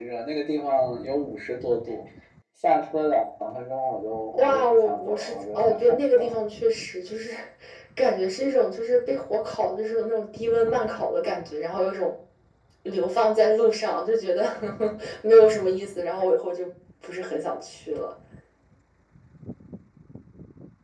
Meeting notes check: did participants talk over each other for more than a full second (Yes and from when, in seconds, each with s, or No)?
Yes, from 4.3 s